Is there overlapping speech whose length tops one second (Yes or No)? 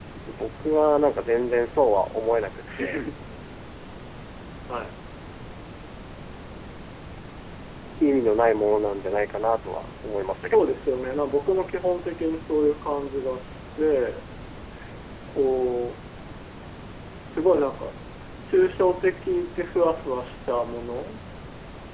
No